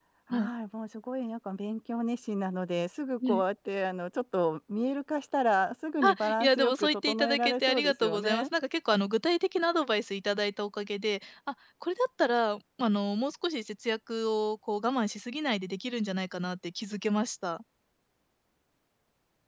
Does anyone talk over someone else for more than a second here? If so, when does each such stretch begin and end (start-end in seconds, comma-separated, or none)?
6.0-8.4